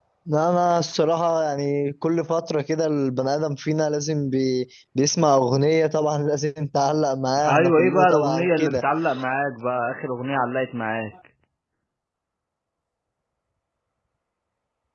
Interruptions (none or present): present